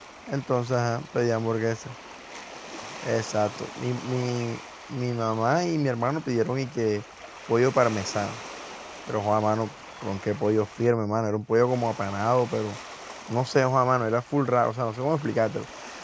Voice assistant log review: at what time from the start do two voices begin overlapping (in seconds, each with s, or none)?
none